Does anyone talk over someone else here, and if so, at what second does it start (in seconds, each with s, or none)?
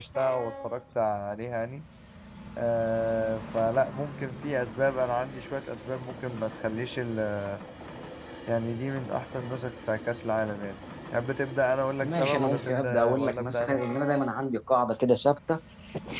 12.0 s